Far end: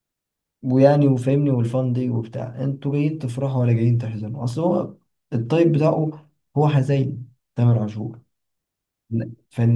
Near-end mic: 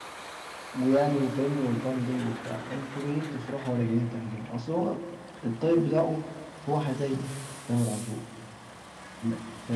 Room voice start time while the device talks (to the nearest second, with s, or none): none